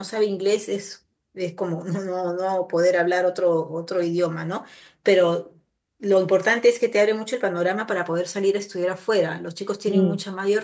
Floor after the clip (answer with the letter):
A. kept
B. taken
A